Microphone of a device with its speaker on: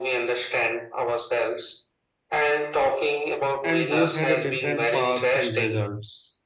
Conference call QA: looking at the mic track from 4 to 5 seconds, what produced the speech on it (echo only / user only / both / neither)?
both